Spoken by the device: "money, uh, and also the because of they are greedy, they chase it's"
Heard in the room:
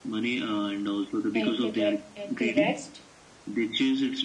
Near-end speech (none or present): present